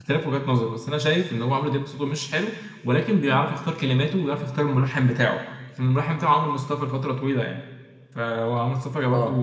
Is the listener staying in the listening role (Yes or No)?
Yes